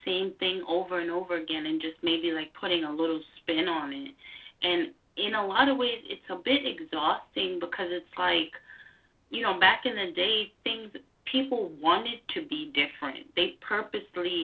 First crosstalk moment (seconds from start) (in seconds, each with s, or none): none